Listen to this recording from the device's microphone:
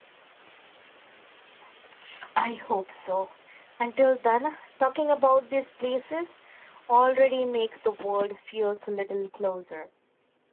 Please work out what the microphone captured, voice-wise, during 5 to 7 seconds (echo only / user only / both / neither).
echo only